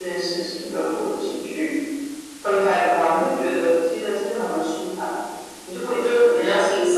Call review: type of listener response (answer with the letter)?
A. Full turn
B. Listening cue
A